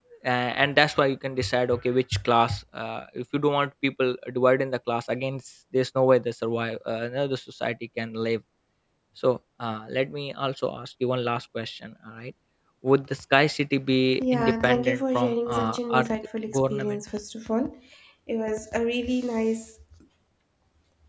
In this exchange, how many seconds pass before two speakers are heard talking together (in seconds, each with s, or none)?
14.2 s